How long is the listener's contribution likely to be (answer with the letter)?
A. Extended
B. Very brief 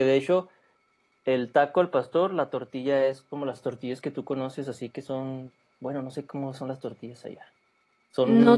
A